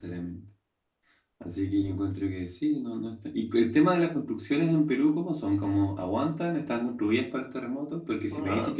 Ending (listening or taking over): listening